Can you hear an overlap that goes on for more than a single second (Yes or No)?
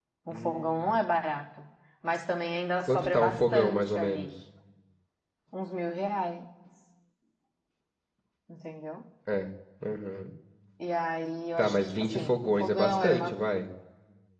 Yes